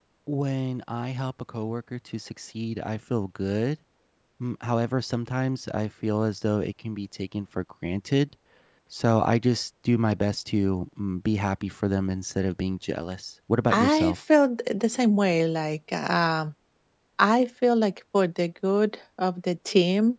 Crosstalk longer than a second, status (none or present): none